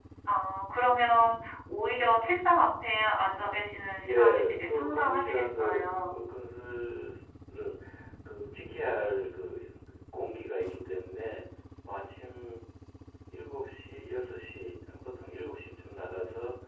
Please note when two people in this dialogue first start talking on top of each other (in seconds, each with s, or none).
4.0 s